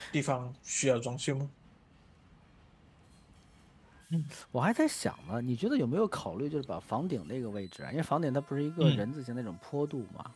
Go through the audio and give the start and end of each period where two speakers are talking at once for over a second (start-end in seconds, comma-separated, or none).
none